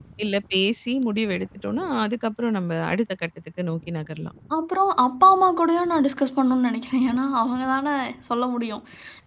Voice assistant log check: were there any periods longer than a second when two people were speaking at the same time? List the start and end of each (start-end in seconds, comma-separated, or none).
none